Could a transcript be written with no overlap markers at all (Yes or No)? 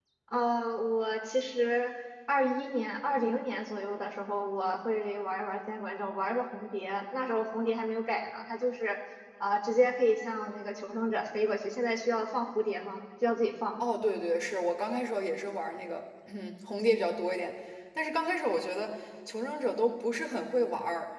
Yes